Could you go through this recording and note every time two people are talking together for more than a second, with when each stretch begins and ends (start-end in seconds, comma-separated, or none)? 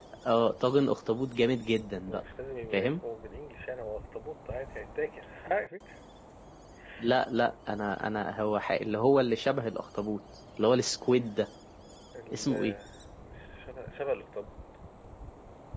none